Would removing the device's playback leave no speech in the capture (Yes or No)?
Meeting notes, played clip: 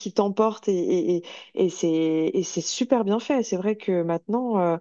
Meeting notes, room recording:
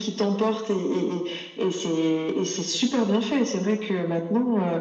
Yes